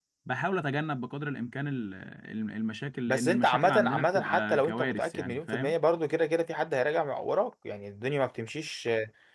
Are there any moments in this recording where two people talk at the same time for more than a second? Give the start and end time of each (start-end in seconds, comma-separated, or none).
3.1-5.7